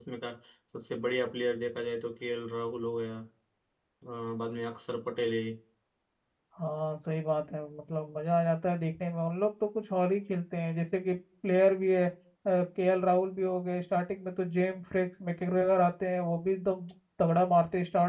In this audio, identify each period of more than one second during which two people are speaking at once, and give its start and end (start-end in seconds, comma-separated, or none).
none